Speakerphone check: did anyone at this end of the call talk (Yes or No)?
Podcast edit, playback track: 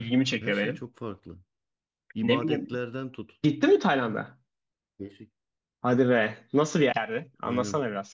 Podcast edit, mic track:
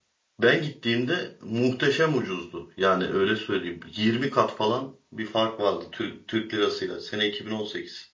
Yes